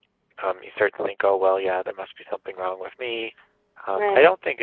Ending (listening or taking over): listening